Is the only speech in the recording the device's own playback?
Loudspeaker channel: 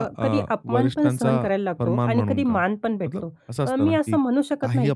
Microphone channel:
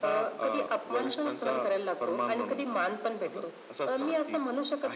Yes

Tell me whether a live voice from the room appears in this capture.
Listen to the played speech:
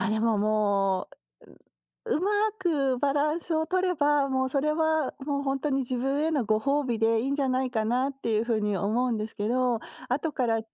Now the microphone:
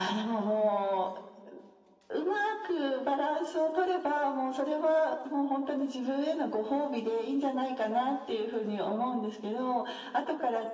No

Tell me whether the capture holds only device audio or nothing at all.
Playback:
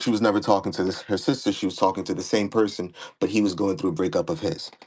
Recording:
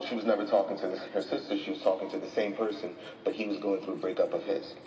Yes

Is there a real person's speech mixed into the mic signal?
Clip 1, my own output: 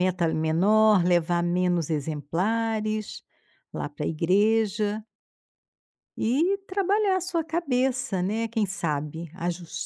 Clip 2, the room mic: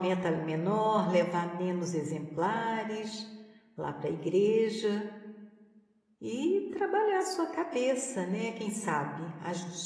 No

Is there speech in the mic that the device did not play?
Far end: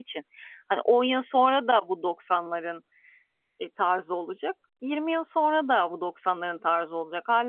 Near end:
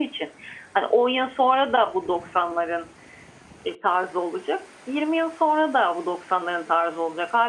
No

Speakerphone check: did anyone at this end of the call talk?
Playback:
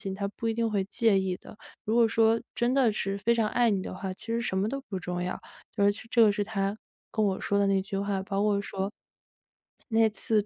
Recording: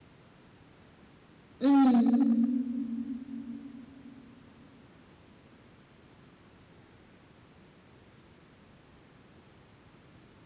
Yes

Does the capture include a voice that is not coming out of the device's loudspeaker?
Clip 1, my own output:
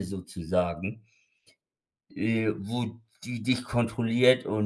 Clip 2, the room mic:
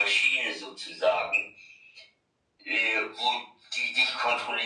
No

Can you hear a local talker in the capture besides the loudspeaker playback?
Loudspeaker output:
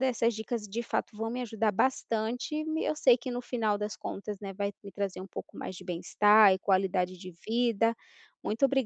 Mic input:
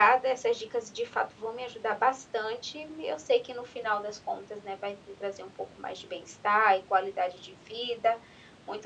No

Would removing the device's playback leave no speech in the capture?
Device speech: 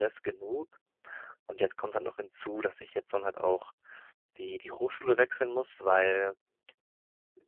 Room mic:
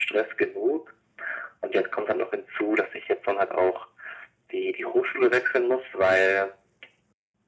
Yes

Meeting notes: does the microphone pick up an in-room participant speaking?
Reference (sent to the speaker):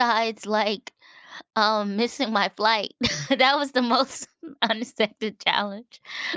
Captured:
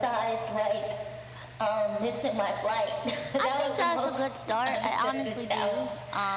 Yes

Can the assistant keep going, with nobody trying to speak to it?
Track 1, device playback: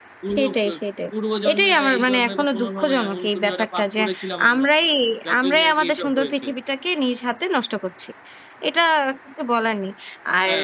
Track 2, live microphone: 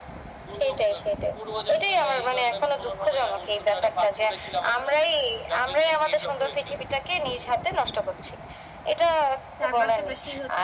No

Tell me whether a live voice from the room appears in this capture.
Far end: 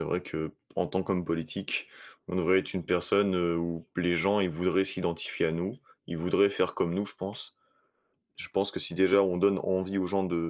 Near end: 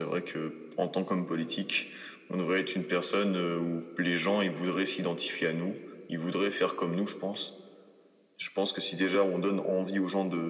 No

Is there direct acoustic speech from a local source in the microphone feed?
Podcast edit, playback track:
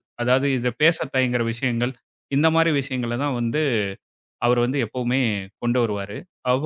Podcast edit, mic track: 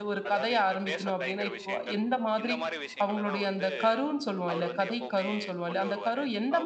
Yes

